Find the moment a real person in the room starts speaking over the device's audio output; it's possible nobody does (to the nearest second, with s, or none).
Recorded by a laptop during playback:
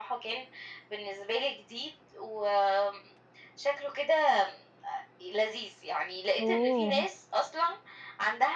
6 s